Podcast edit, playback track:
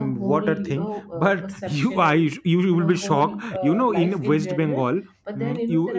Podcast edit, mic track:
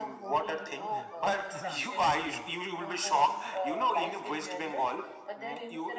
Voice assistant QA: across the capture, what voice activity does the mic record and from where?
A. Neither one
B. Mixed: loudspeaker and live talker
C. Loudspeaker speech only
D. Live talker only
B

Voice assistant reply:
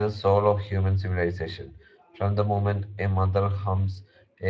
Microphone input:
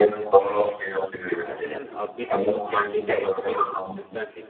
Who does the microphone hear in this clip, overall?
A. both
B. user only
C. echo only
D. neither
A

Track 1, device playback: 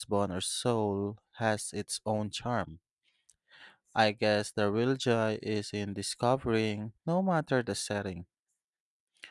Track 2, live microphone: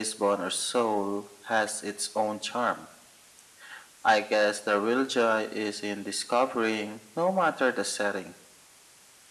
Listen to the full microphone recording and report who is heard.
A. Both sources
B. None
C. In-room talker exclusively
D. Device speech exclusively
D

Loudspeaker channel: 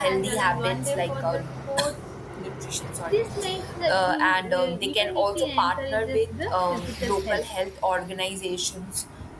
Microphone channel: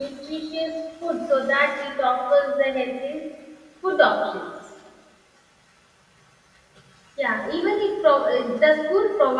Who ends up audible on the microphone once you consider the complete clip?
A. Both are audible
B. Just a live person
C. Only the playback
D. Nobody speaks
B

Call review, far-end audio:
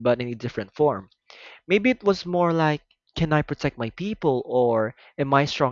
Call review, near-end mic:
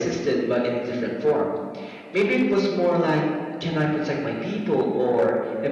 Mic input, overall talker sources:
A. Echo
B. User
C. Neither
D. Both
A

